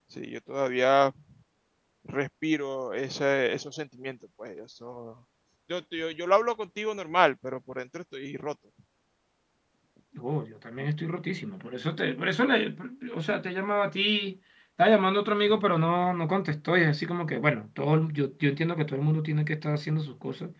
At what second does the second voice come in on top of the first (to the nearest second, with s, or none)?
none